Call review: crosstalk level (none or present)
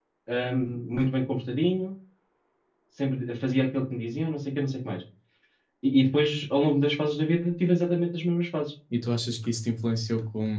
none